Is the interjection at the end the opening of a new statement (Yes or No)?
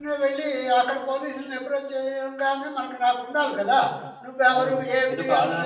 Yes